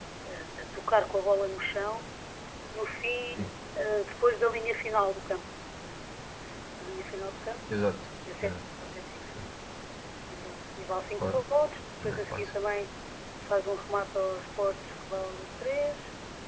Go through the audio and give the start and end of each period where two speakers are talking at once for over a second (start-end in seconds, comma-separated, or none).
none